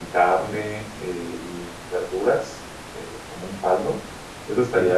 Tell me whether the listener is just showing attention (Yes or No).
Yes